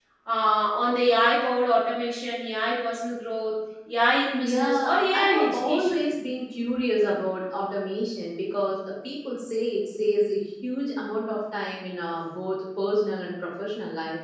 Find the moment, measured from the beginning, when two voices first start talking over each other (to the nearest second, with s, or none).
4 s